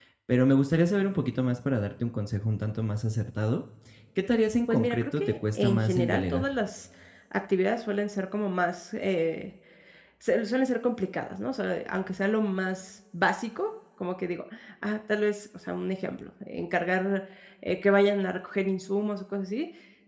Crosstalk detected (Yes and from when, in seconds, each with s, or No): Yes, from 4.7 s